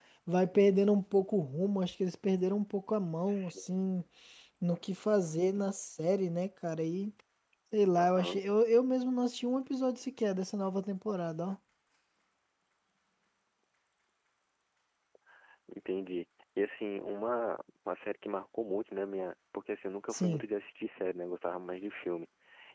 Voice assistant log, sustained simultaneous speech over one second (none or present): none